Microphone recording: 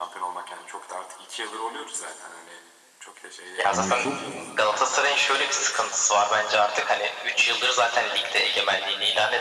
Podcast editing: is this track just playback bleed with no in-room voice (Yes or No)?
No